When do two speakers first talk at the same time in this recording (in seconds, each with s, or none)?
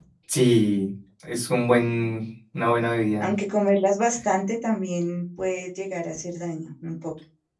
none